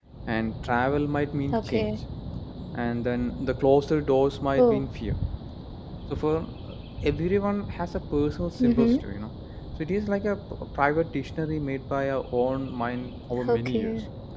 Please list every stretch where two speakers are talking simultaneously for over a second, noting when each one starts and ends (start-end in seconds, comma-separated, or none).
none